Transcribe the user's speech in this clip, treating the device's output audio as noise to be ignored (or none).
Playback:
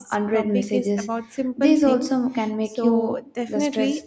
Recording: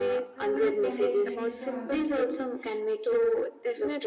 I'm doing fine. Thank you for asking.